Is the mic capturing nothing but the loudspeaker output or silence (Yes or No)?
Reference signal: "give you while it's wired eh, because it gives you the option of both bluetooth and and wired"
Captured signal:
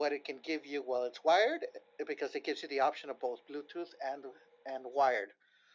Yes